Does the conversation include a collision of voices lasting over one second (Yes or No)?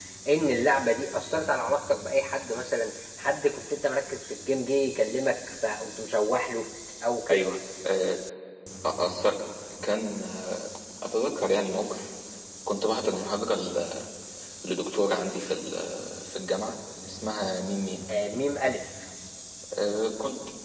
No